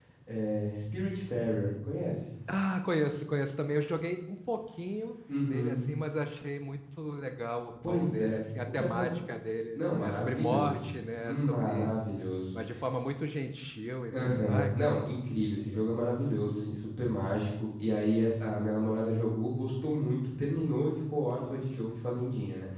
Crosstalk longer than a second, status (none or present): present